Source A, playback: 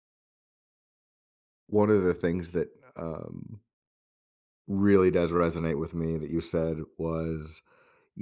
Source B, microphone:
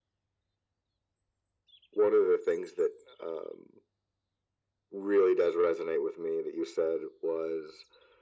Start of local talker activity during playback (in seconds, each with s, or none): none